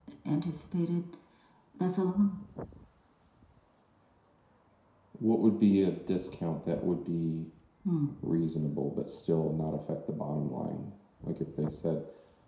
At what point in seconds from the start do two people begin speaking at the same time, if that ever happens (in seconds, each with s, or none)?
none